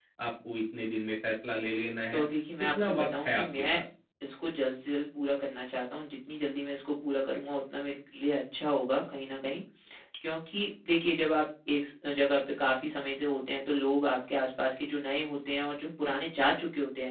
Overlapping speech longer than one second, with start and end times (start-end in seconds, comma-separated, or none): 2.6-3.8